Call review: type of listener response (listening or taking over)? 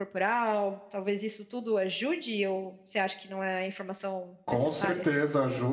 taking over